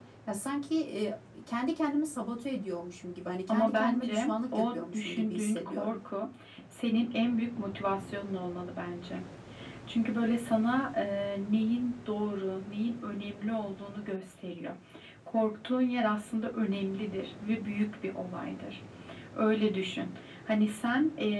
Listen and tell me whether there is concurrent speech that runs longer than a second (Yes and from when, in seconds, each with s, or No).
Yes, from 3.5 s